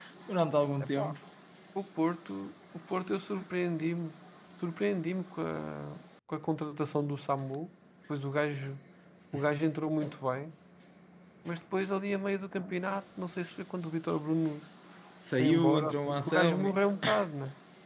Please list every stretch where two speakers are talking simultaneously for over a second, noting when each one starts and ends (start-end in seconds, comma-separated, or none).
15.4-16.8